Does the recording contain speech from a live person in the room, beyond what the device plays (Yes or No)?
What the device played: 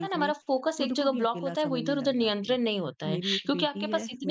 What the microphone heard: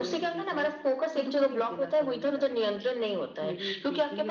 No